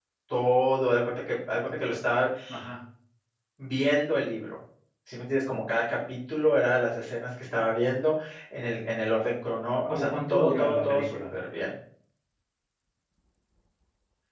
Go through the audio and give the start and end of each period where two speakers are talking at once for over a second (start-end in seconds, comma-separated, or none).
9.9-11.2